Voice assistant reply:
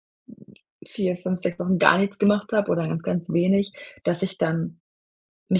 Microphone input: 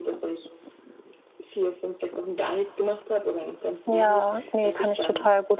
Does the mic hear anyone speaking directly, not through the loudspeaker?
Yes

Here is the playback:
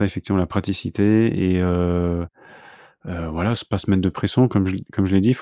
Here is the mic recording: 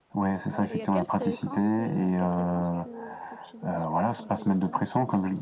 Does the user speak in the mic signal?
Yes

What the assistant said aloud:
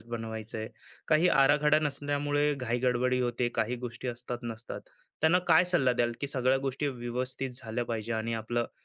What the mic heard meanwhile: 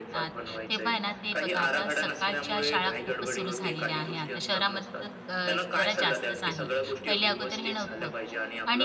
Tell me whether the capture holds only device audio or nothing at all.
No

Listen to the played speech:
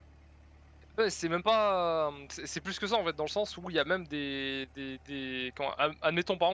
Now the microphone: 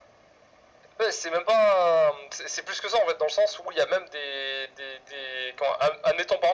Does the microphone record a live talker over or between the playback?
No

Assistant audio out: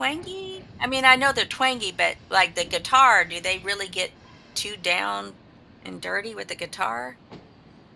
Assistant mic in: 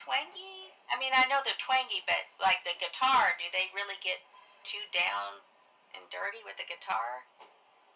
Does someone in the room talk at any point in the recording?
No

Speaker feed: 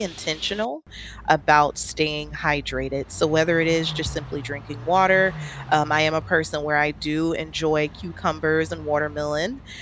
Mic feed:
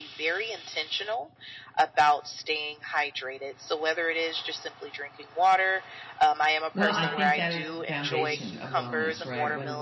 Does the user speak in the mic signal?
Yes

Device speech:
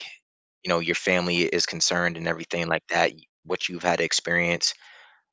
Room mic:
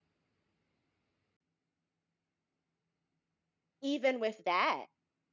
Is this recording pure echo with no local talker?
No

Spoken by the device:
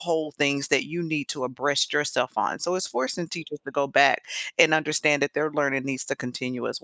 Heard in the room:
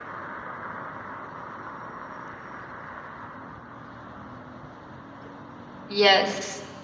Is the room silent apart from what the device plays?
No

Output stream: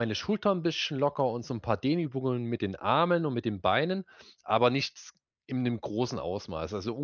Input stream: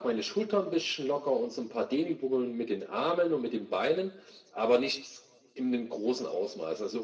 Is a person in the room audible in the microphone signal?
No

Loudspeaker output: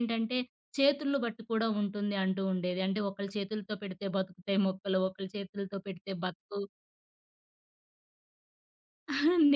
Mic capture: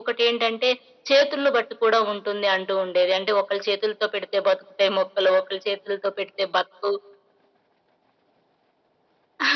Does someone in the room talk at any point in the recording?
No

